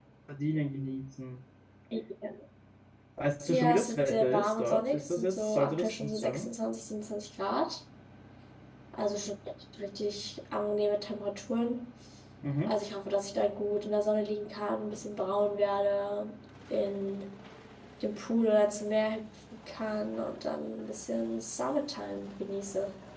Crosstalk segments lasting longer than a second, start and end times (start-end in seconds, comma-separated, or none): 3.5-6.5